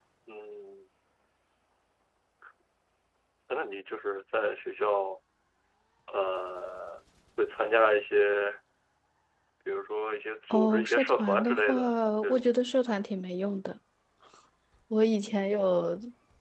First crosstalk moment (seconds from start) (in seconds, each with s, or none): 10.5 s